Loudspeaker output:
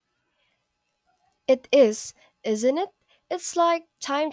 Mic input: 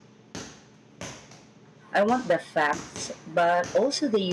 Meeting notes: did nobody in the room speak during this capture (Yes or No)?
No